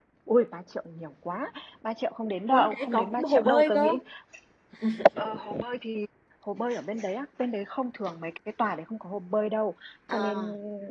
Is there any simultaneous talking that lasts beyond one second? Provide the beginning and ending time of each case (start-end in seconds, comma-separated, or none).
2.5-3.9